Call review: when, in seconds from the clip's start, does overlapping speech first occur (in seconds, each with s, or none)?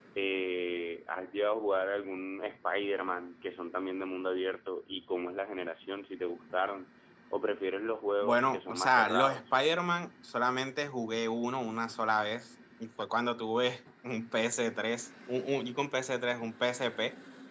8.2 s